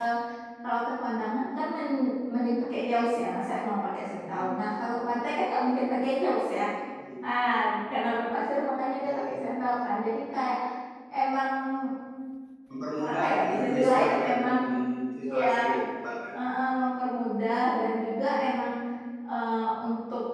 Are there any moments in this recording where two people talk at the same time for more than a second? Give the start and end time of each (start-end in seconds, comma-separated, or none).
13.1-14.3